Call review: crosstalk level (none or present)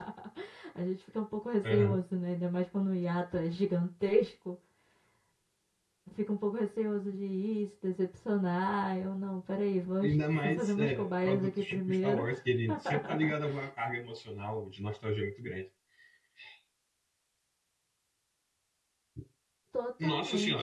present